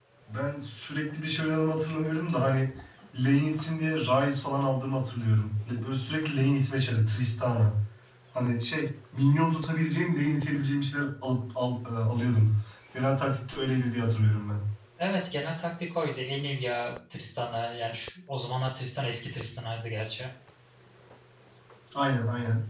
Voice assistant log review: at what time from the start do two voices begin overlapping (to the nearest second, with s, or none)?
none